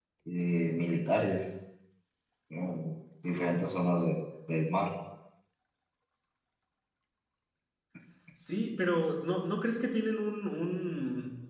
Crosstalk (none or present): none